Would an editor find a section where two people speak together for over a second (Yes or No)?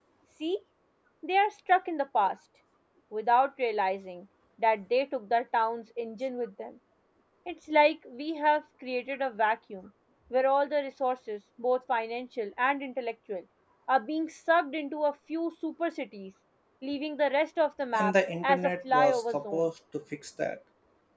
Yes